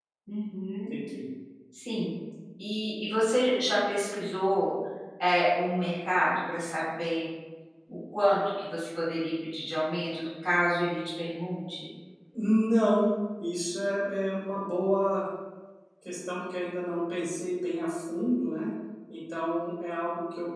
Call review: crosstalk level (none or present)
none